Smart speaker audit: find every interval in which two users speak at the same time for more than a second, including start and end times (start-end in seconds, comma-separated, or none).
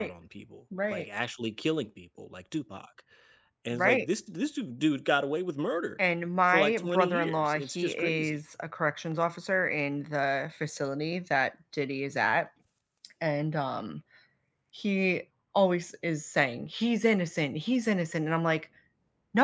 6.5-8.4